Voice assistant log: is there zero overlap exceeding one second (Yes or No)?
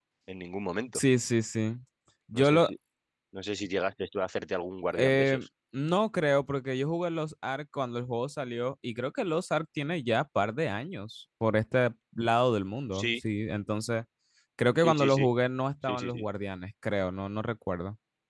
Yes